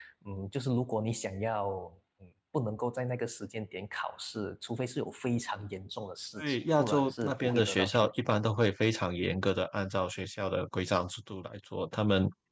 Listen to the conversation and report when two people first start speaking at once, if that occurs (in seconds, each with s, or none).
6.4 s